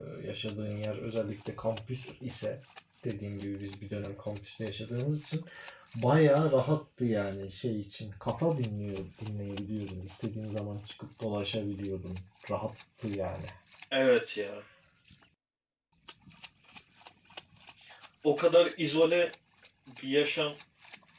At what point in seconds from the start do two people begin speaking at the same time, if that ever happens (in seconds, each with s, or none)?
none